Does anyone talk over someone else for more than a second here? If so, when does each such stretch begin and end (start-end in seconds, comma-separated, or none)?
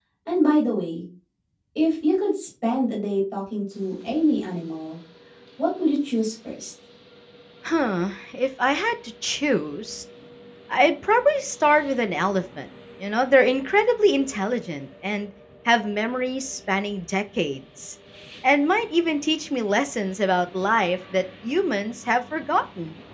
none